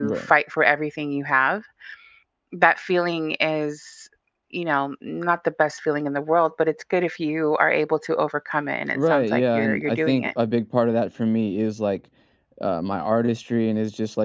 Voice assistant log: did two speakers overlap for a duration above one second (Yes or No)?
Yes